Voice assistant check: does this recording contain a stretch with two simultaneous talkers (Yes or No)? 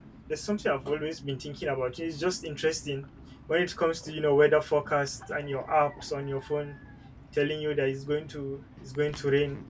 No